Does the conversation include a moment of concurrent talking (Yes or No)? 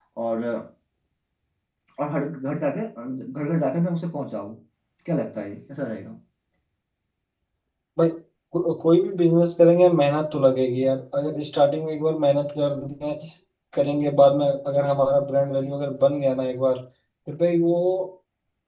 No